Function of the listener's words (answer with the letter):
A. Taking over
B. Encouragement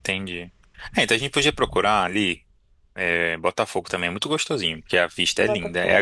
B